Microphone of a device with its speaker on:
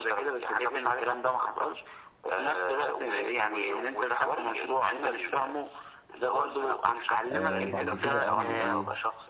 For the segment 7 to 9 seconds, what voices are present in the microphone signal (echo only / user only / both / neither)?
both